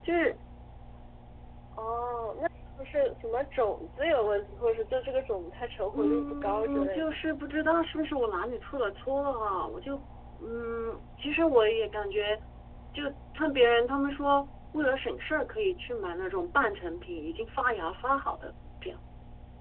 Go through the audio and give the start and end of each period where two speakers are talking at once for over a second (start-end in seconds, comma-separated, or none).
5.9-7.2